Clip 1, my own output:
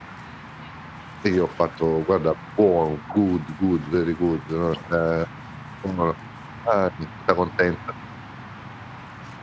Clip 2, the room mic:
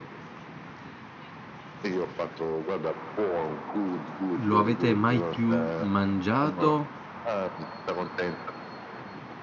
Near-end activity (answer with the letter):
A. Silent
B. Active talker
B